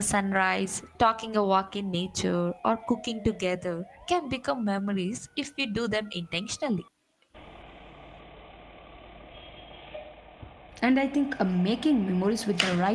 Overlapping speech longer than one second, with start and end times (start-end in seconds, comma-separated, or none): none